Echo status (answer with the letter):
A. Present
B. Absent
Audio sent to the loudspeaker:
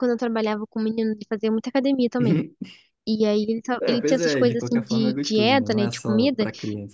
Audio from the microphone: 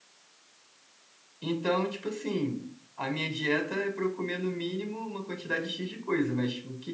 B